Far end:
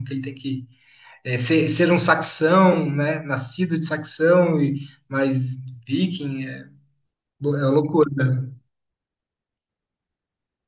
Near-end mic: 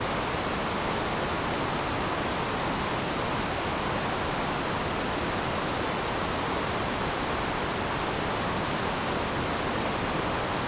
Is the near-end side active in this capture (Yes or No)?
No